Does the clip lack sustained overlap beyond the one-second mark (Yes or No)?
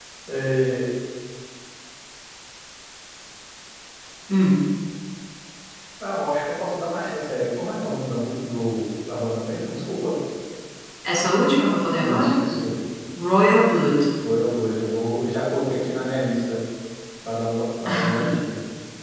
Yes